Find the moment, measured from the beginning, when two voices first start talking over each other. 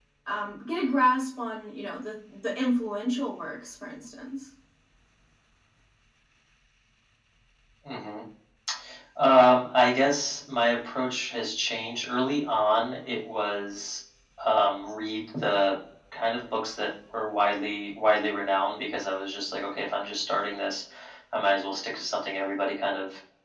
none

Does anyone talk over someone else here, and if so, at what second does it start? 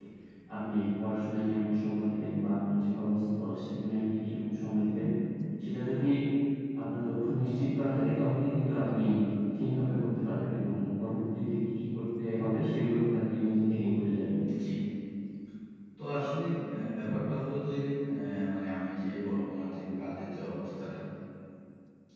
none

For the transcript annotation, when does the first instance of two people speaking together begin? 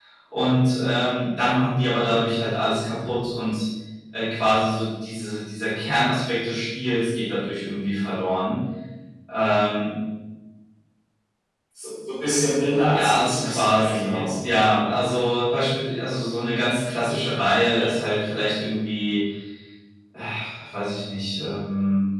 12.8 s

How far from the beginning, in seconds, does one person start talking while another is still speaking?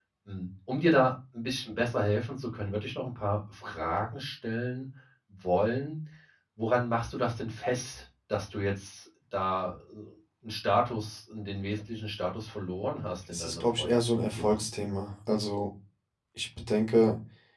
13.3 s

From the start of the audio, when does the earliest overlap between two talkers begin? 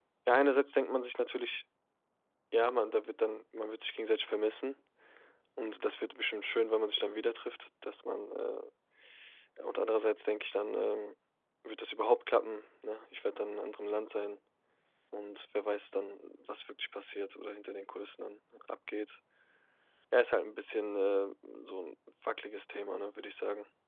none

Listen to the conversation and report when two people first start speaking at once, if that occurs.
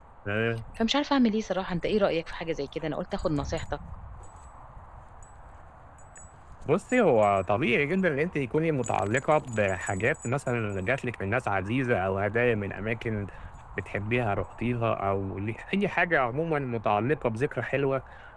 none

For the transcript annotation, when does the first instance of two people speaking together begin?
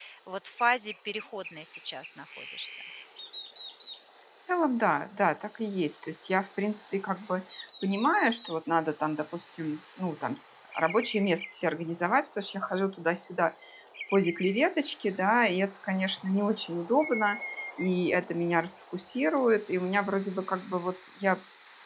none

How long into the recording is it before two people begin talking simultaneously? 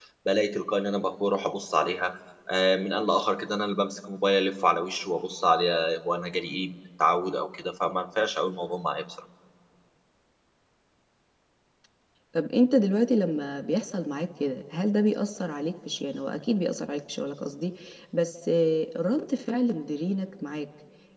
none

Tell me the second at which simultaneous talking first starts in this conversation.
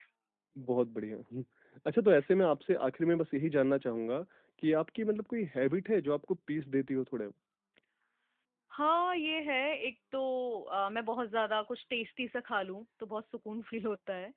none

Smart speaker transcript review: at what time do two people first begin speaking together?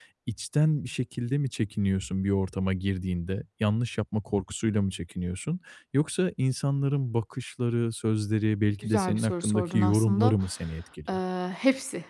8.8 s

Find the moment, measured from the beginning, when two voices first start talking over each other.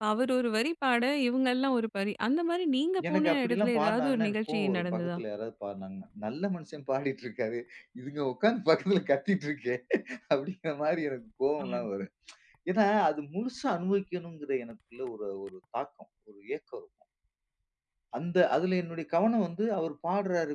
3.1 s

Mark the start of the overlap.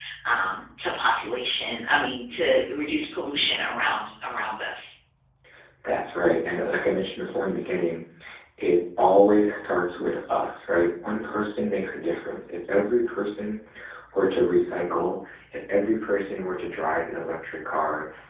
none

